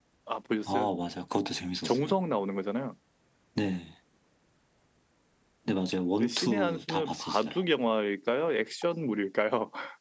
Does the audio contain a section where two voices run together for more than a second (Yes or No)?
Yes